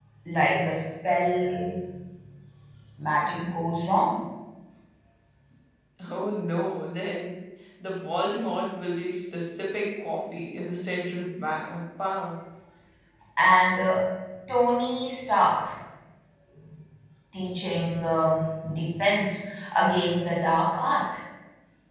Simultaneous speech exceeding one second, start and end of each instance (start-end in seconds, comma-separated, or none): none